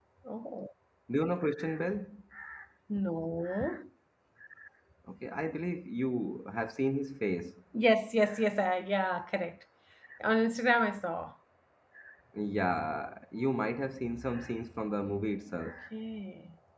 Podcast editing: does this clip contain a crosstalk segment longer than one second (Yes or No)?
No